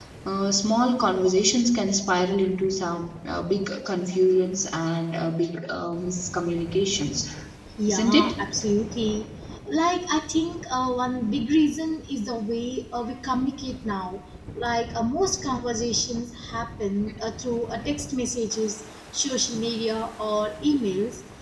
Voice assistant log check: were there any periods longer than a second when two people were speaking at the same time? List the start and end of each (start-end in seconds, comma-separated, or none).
none